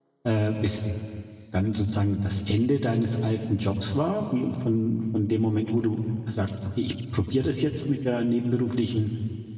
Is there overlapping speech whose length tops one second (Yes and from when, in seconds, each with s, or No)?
No